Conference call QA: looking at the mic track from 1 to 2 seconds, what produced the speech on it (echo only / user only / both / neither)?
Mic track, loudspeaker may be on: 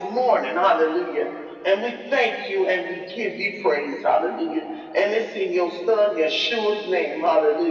echo only